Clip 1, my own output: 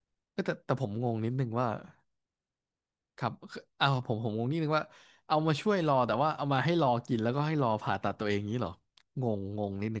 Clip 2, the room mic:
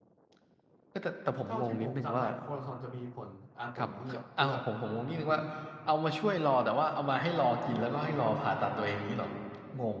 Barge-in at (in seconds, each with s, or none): 1.4 s